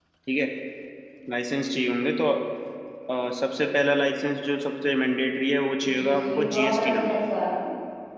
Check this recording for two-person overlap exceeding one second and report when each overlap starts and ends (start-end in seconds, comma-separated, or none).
6.0-7.2